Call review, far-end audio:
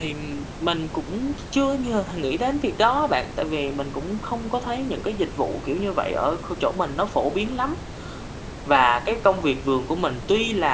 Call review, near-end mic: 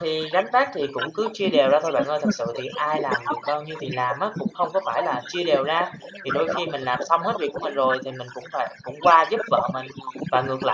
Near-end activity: present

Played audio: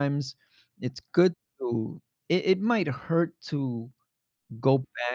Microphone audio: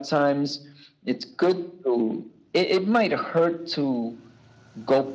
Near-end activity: none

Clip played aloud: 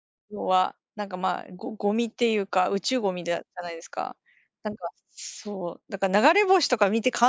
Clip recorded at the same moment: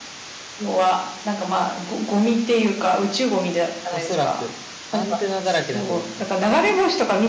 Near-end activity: present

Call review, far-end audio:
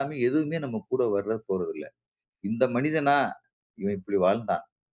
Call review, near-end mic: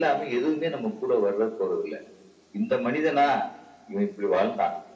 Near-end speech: none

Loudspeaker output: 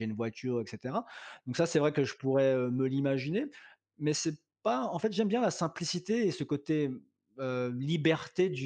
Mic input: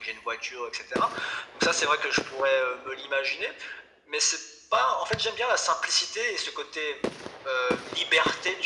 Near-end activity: none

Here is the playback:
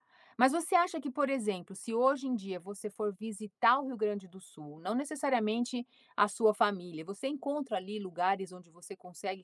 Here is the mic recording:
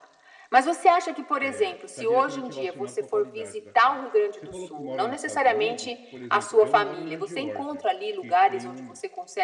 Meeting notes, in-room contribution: present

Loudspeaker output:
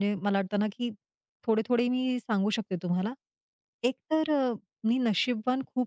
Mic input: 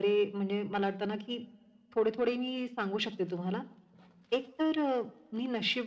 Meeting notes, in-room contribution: none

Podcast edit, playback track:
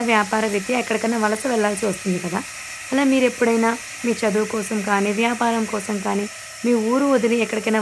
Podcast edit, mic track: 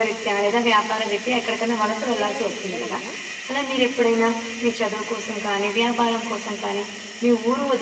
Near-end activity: present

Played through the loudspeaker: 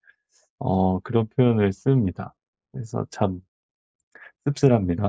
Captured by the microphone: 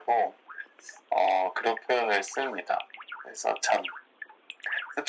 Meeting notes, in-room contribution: none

